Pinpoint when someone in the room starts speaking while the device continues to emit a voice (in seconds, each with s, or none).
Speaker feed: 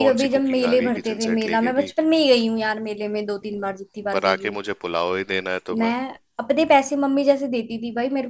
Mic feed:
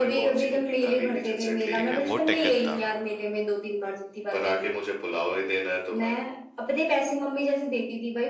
1.7 s